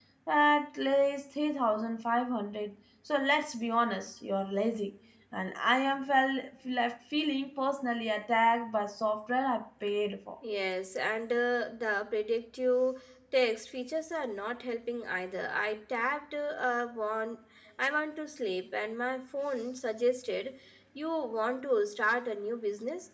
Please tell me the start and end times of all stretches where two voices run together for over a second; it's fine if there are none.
none

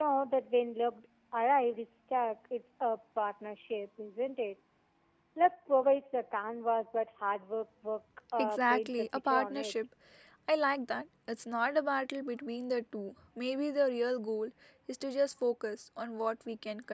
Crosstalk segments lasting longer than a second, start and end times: 8.4-9.7

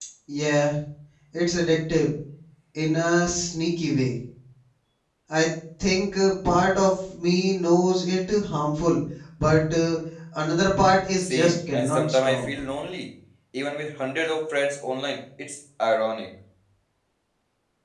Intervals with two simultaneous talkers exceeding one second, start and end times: 11.2-12.5

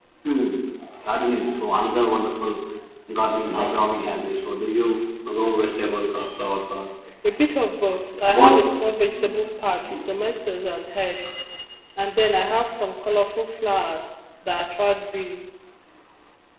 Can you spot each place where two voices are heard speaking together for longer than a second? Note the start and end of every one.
none

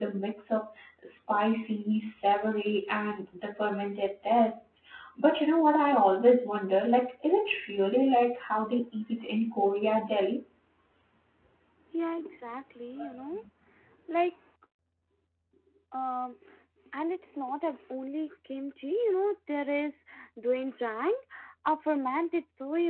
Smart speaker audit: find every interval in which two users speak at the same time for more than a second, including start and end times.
none

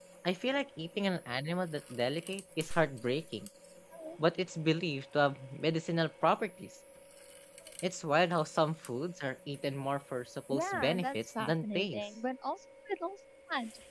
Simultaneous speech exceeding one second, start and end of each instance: 10.5-12.0

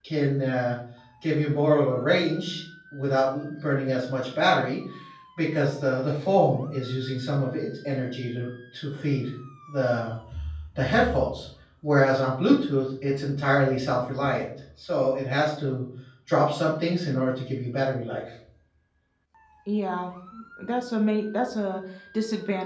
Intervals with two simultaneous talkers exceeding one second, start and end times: none

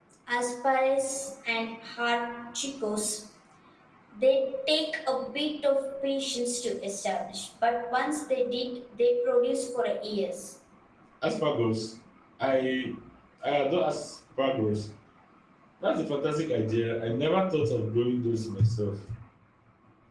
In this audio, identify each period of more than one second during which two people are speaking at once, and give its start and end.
none

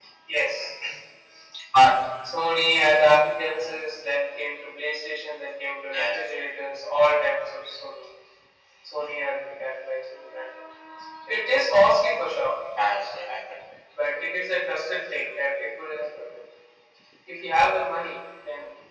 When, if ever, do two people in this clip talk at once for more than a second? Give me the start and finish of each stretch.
none

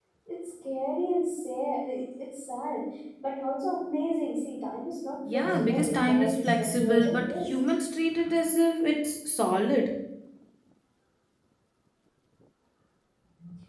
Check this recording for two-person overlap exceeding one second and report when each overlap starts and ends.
5.3-7.5

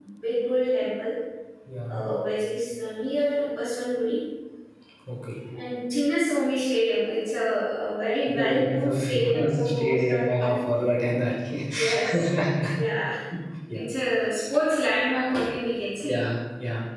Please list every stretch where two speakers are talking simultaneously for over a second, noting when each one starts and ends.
8.3-10.6

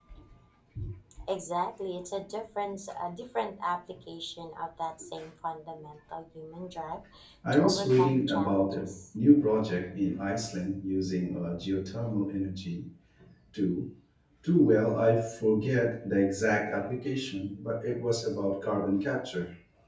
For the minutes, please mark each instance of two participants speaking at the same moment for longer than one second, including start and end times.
7.5-8.9

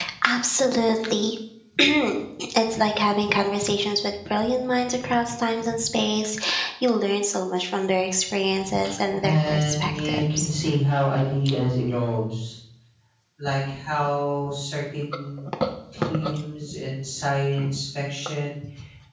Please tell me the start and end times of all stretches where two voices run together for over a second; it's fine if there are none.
9.2-10.5

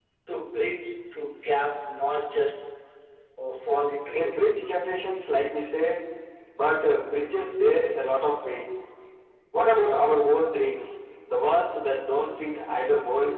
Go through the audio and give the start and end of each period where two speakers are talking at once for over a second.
none

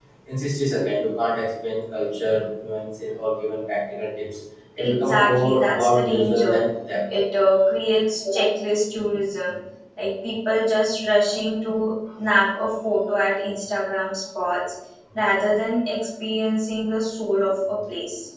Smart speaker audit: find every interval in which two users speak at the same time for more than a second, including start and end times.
4.8-6.6

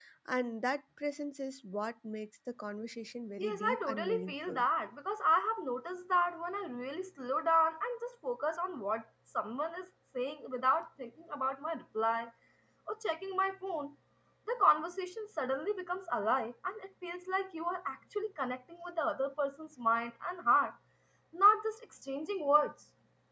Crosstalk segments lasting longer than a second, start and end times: 3.4-4.6

